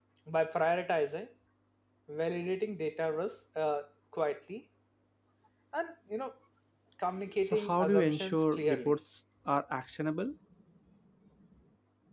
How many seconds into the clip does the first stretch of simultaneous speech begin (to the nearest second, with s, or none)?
7 s